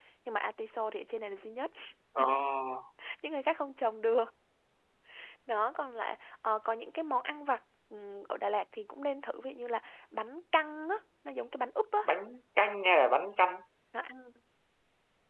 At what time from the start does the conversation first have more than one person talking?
none

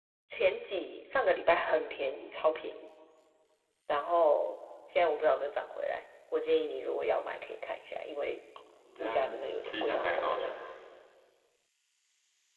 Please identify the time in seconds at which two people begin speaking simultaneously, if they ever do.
9.0 s

